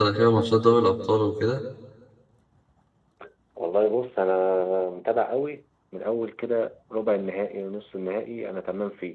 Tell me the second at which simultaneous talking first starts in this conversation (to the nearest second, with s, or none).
none